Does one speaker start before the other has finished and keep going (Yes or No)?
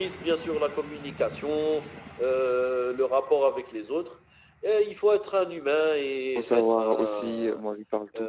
Yes